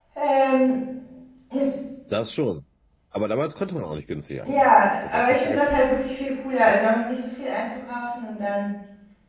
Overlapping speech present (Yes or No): Yes